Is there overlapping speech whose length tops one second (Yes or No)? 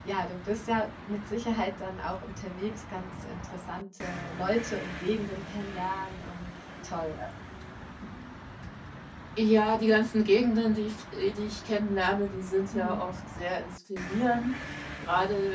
No